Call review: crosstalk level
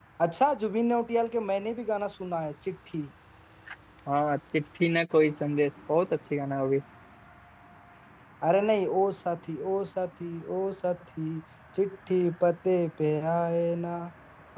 none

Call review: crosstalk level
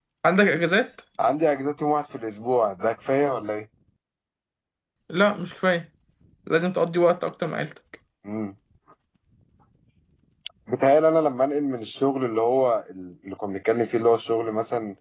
none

